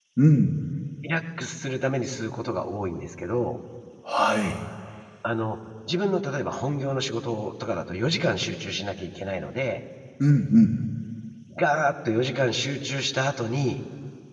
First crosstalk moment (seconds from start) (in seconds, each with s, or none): none